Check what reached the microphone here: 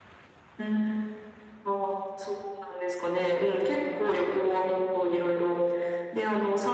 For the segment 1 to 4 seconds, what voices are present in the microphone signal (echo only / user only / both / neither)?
echo only